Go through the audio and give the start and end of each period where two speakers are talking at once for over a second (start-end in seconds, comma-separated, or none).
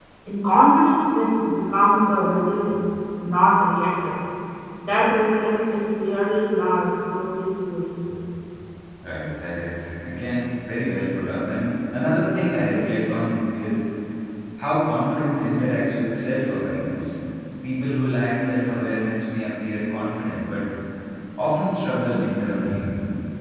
none